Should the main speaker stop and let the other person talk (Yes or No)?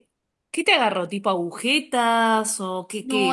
Yes